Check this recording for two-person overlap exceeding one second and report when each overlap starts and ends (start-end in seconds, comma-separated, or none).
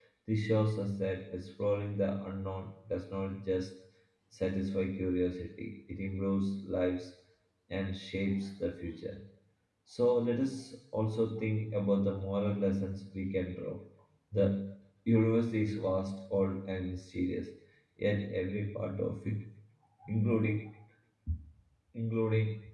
none